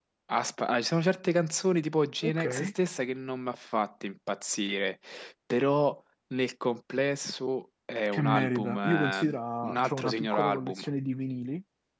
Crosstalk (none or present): present